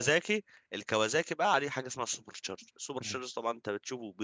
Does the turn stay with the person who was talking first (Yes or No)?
Yes